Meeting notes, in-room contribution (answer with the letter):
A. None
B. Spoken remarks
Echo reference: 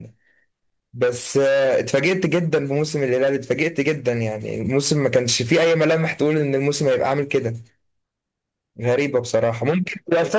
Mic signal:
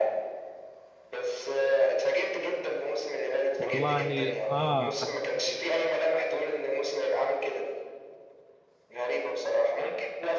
B